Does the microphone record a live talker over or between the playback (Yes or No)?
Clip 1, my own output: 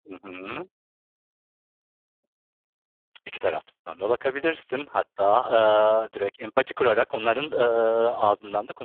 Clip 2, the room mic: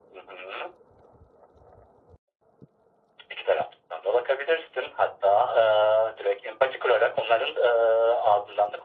No